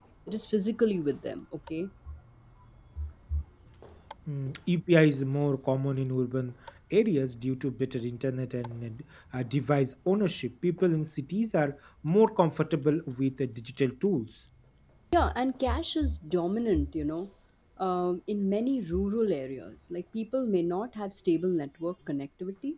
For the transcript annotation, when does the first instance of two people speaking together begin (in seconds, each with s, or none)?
none